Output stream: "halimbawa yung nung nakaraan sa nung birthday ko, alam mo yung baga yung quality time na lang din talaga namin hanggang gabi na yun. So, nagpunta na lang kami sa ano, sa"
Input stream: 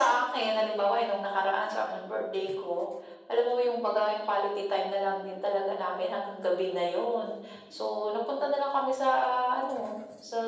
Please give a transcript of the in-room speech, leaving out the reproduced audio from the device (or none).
none